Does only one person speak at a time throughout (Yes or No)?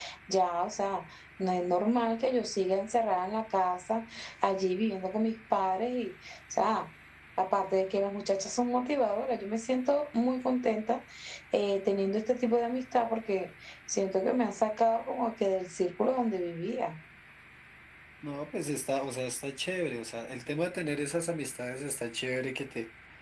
Yes